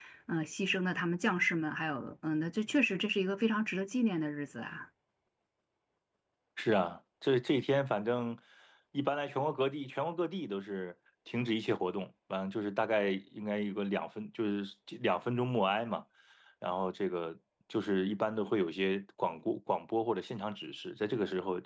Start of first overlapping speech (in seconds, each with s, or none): none